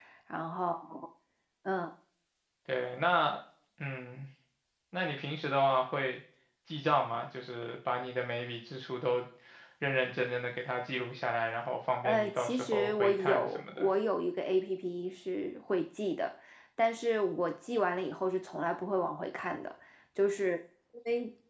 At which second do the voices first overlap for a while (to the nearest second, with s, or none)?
12 s